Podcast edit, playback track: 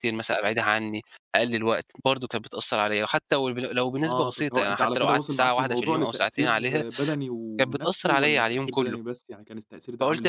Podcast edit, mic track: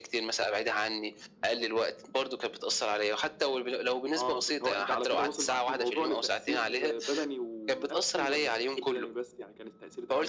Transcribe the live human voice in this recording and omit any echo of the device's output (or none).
none